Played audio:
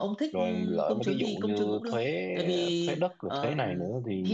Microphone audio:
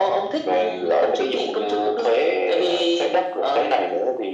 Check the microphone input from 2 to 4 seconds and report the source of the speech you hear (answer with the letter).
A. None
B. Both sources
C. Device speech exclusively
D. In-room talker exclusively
C